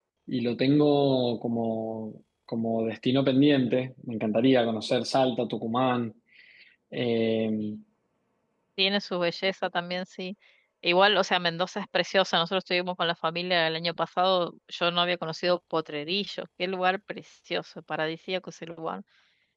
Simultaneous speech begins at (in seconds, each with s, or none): none